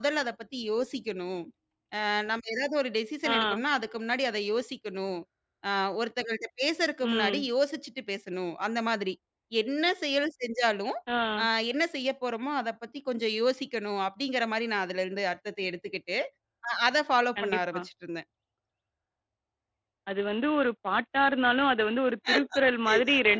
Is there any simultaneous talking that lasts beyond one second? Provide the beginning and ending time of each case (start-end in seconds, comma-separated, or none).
none